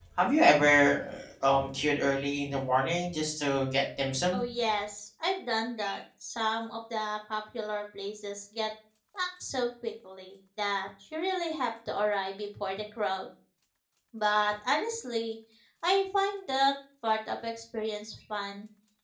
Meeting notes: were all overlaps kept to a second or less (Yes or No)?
Yes